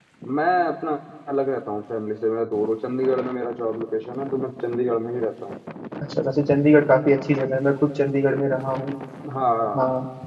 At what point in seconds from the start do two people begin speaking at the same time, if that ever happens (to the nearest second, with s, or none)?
none